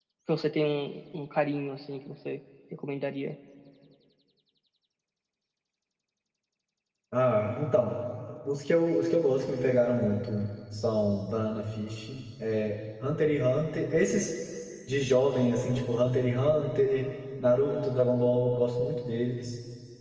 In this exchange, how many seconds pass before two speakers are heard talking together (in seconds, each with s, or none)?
none